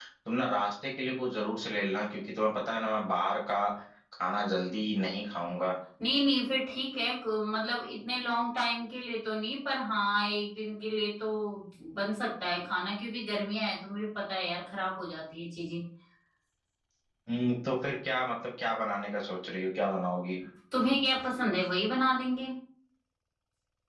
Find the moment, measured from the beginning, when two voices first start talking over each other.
none

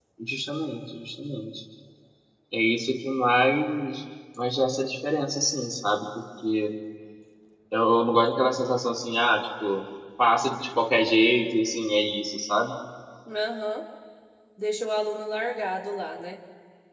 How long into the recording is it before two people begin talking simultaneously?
none

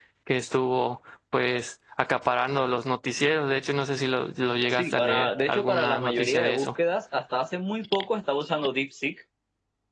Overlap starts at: 4.7 s

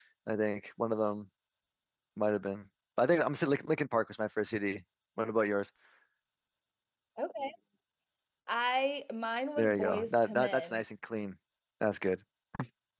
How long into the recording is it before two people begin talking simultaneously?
9.6 s

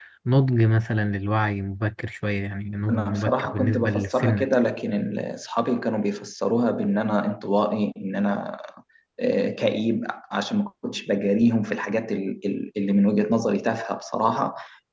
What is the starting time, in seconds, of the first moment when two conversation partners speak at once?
2.9 s

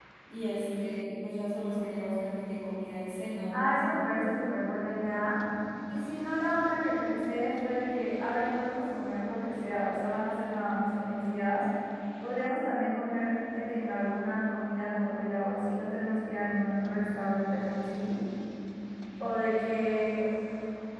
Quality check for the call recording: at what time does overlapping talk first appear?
none

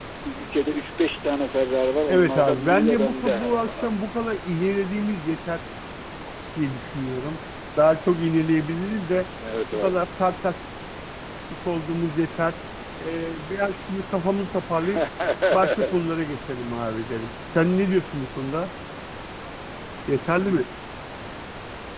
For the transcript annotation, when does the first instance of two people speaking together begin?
2.1 s

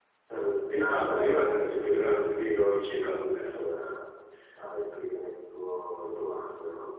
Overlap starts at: 0.7 s

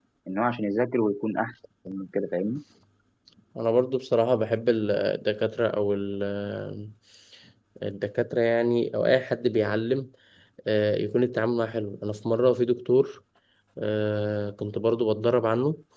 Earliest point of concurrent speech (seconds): none

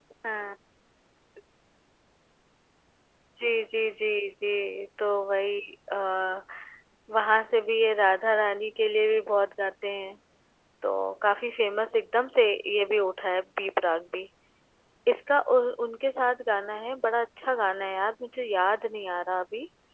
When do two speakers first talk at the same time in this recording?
none

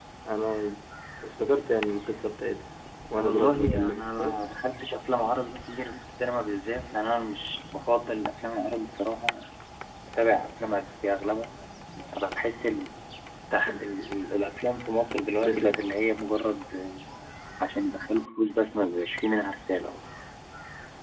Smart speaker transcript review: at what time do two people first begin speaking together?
3.2 s

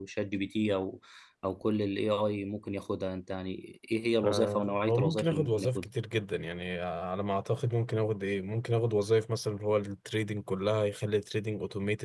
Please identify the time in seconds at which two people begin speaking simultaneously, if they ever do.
4.2 s

